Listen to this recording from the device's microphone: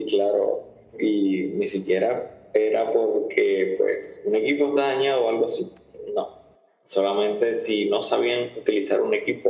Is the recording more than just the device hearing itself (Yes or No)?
No